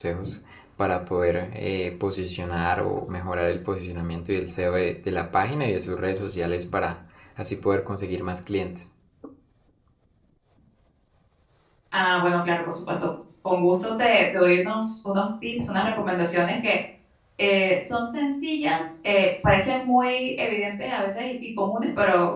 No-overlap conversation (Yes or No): Yes